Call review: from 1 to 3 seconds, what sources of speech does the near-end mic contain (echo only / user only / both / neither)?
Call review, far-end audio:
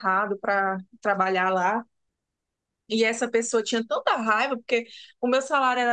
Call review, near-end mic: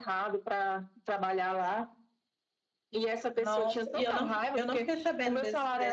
echo only